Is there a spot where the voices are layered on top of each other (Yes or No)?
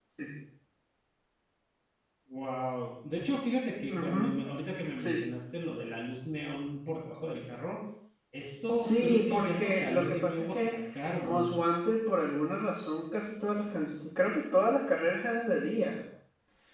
Yes